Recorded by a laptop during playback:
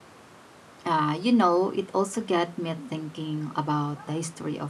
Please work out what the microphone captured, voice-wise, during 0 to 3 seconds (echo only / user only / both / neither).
user only